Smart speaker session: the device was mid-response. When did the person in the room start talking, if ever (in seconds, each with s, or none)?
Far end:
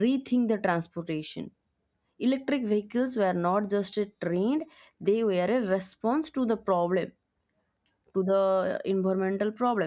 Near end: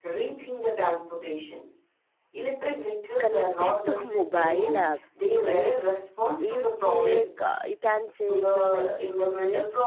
3.2 s